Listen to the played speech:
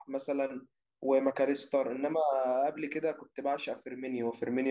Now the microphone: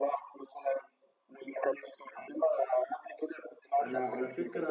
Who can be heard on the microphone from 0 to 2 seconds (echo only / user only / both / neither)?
echo only